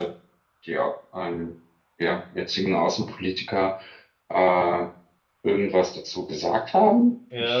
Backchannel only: No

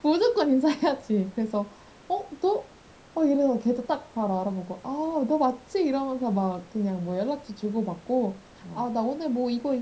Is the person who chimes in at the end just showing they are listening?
Yes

